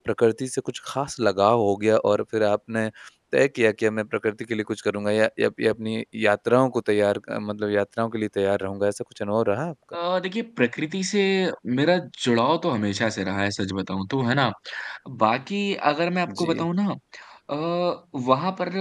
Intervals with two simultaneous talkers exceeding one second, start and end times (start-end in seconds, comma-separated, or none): none